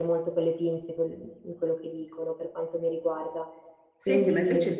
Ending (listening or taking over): taking over